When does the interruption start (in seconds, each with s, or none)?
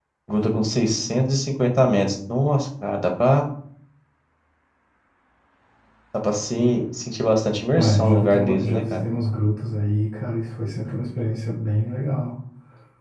7.8 s